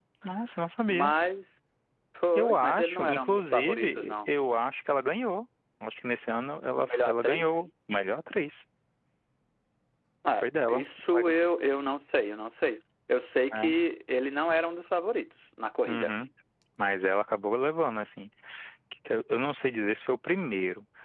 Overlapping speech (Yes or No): Yes